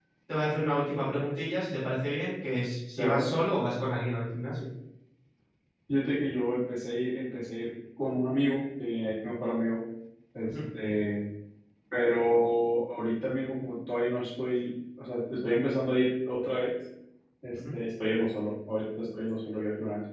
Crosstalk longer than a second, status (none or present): none